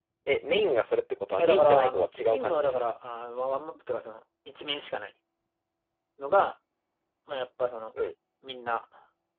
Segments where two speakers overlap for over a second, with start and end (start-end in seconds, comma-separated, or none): 1.4-2.8